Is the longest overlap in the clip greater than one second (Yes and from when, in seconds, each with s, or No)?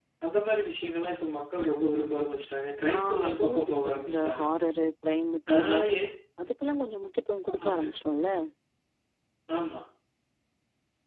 Yes, from 2.9 s